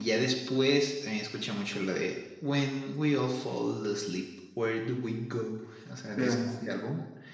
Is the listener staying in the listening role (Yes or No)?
Yes